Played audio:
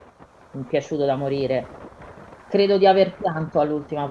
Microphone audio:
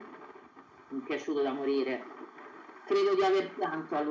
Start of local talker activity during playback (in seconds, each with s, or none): none